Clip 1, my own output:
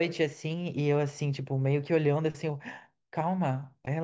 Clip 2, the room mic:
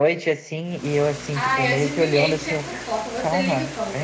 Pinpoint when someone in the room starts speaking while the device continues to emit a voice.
1 s

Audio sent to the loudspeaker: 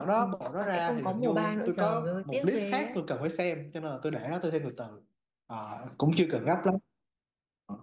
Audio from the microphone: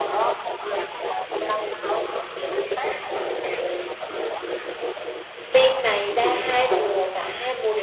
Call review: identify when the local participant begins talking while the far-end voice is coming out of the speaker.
6 s

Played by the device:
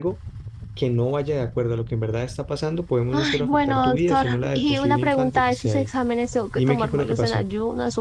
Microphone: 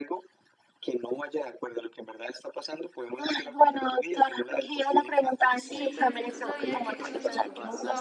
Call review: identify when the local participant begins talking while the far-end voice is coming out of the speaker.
6 s

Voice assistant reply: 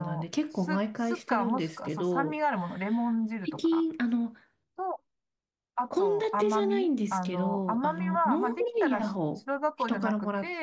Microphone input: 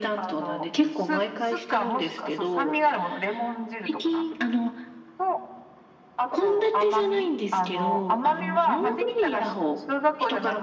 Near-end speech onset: none

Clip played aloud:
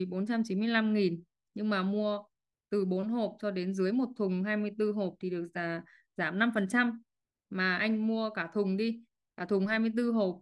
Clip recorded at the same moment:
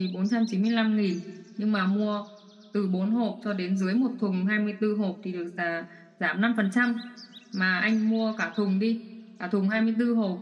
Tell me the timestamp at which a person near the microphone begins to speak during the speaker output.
none

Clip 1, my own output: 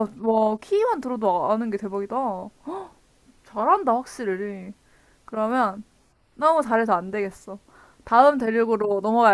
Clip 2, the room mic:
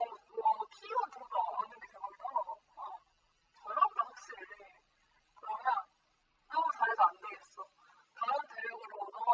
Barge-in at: none

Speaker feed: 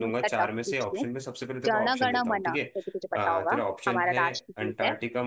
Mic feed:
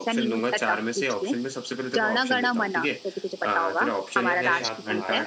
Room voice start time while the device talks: 4 s

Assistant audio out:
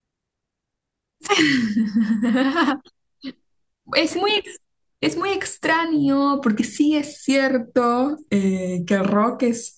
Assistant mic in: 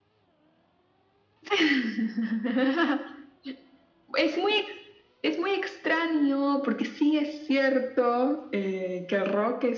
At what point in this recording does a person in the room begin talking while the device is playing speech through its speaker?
none

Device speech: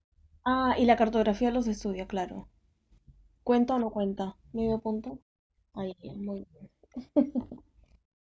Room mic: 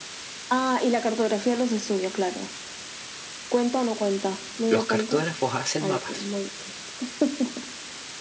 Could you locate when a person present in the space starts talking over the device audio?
5 s

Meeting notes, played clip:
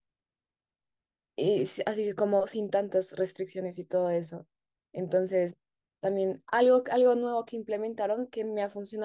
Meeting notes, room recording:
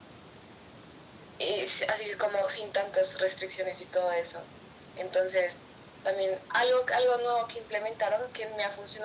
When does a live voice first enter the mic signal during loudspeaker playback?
none

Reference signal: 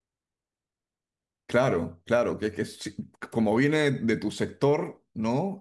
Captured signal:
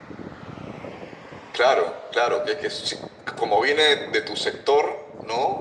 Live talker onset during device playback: none

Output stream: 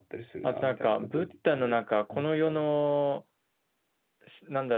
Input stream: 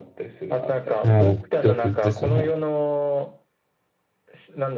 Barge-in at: 1 s

